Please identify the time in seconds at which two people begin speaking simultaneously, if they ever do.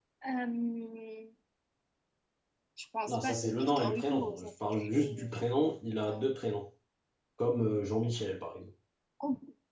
3 s

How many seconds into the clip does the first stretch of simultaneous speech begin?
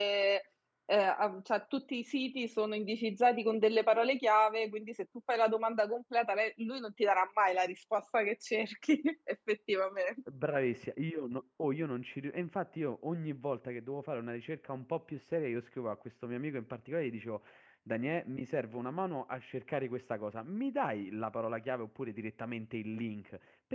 none

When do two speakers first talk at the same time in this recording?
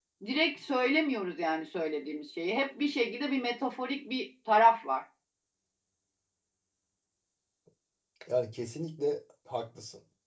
none

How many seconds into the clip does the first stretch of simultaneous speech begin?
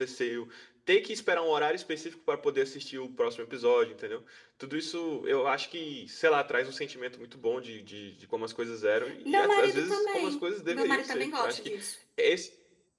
9 s

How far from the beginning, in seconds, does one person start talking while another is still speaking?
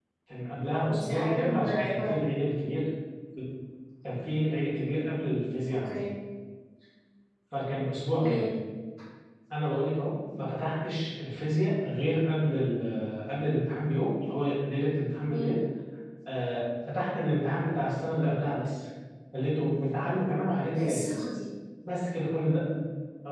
1 s

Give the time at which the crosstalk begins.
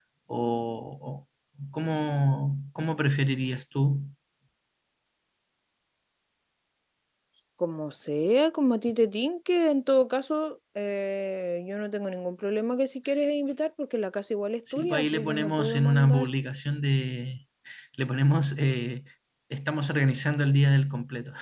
15 s

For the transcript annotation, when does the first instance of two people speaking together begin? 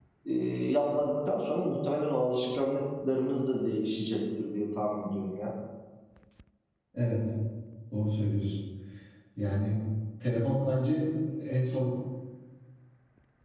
none

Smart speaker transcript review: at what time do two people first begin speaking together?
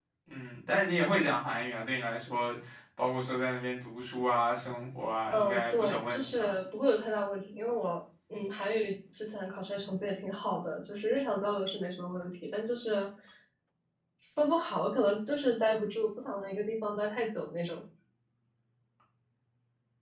5 s

